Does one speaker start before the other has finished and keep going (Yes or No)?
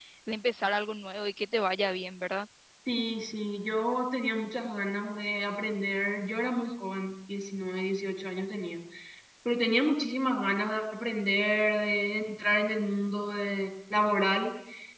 No